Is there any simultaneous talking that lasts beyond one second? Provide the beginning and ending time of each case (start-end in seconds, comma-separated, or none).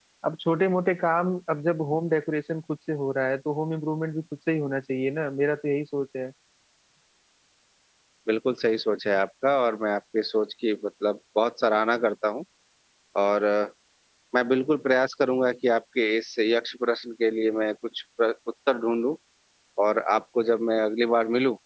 none